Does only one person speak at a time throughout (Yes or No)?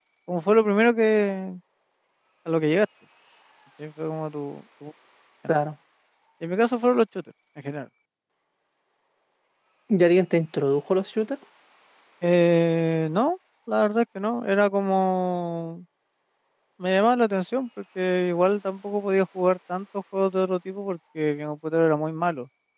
Yes